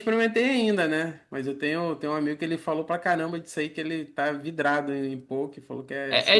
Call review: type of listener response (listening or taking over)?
taking over